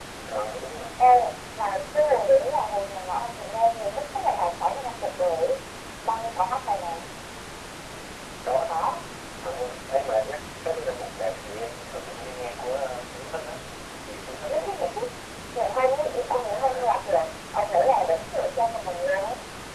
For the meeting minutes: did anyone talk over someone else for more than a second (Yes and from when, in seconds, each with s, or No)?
No